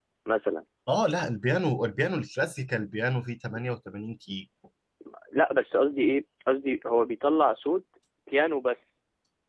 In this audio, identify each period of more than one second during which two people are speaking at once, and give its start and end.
none

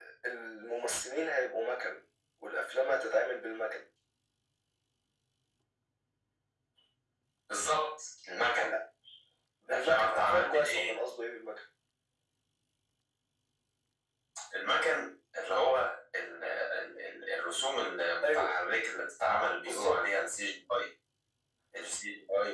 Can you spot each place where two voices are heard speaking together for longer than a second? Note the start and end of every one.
9.7-10.9

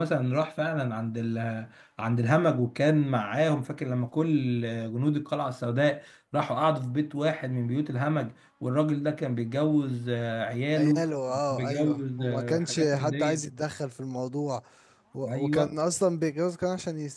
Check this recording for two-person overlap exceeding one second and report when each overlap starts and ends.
11.5-13.5

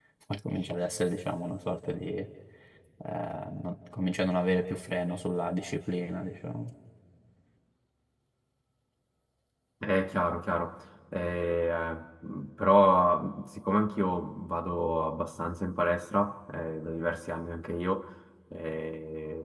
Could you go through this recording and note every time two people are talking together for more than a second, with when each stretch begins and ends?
none

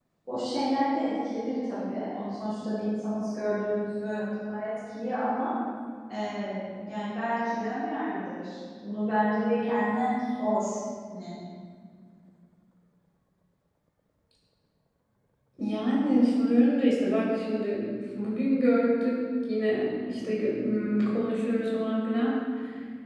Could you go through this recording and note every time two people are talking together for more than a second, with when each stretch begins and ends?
none

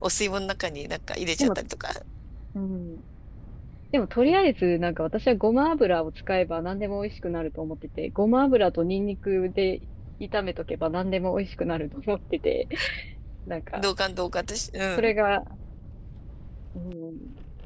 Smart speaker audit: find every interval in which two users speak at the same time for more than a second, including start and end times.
none

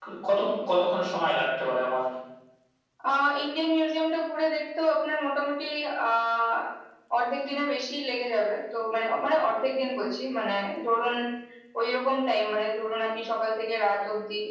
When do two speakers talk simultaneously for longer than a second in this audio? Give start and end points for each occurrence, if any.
none

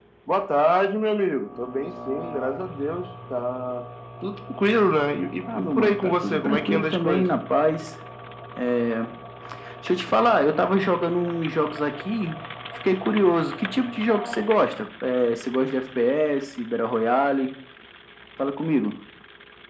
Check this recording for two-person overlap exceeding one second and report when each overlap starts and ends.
5.5-7.3

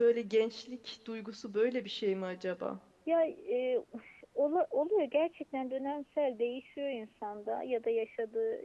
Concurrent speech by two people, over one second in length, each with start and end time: none

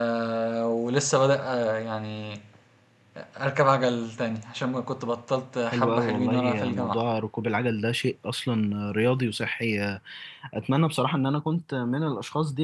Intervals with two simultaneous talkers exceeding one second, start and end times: 5.7-7.0

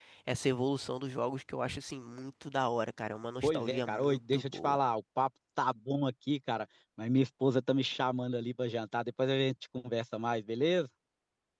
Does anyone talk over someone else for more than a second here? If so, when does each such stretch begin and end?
3.4-4.8

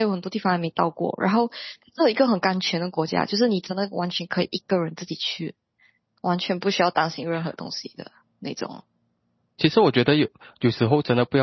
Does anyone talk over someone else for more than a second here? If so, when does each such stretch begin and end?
none

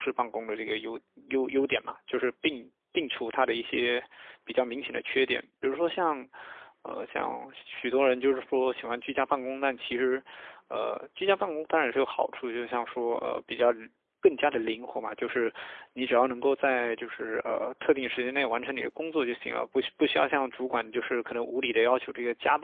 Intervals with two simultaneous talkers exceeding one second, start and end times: none

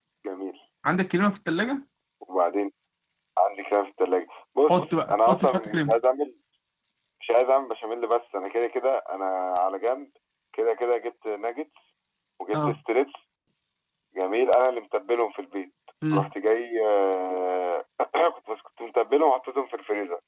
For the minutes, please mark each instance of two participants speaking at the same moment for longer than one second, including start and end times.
4.7-6.0

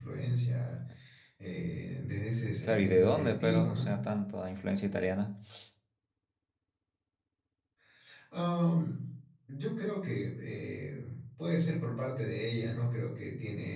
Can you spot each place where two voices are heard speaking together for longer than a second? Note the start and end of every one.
2.6-4.0

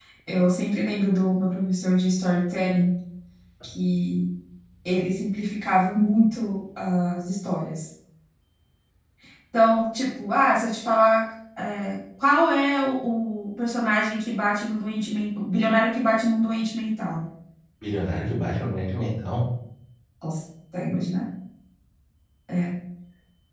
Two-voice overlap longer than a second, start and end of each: none

